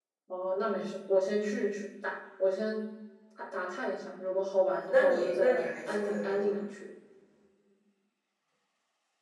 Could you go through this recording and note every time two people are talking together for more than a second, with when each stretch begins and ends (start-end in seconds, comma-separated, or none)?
4.6-6.6